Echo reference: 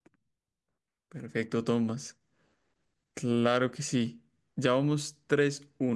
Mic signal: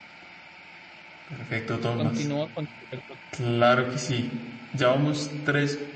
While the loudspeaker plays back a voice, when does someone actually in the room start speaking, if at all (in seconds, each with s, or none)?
1.9 s